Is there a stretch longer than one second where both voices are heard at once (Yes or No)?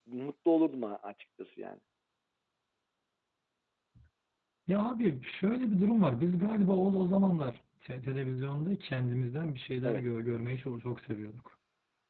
No